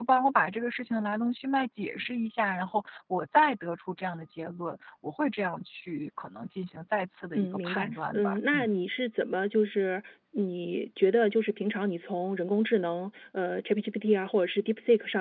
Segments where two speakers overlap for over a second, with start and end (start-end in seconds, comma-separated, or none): 7.3-8.7